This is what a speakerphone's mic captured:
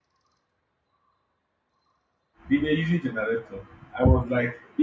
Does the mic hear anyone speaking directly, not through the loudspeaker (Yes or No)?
Yes